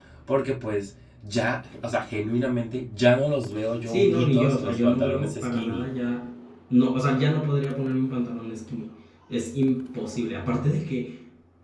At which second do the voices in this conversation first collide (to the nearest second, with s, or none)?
4 s